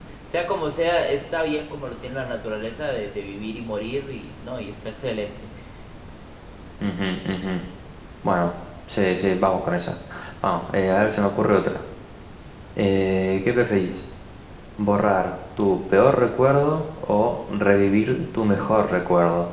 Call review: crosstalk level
none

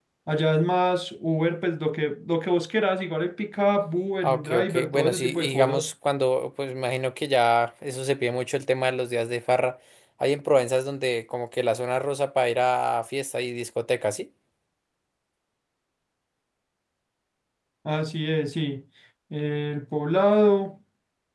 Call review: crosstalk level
present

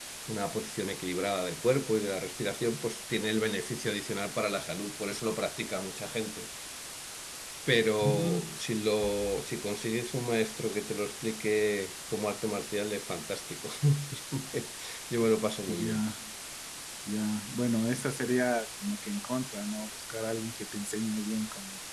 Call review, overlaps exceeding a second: none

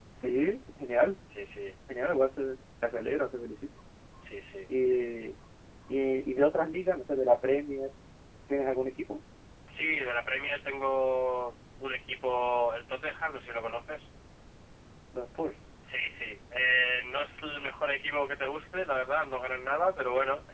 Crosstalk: none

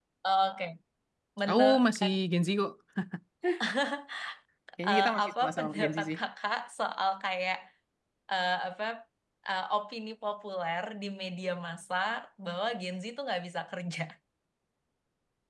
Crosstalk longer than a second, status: present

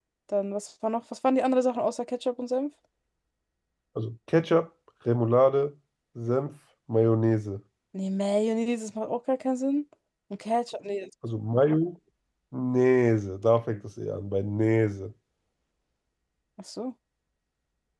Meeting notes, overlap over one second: none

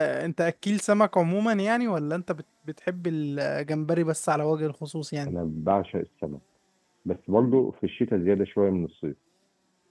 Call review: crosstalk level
none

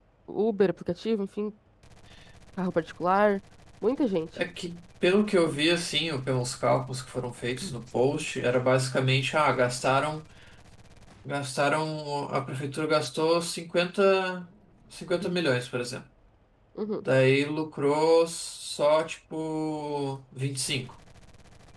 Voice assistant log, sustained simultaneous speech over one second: none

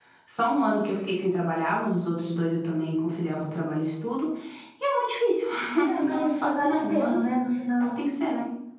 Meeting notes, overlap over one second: present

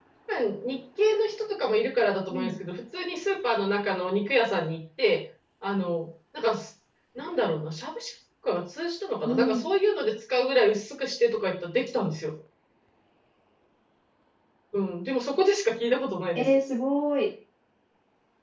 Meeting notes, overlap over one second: none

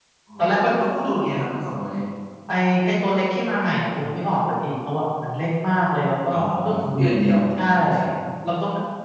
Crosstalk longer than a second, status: none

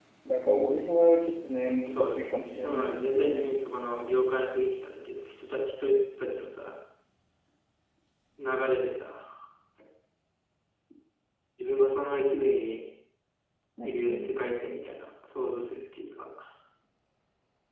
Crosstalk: present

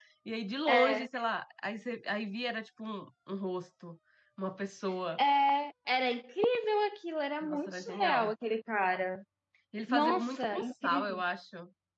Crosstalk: present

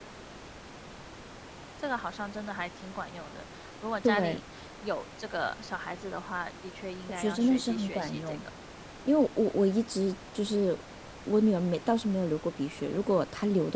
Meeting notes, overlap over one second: present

